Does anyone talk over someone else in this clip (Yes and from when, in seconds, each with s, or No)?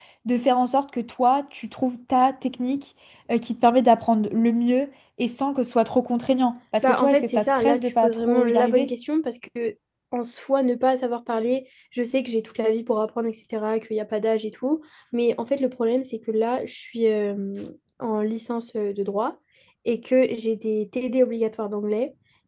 Yes, from 6.8 s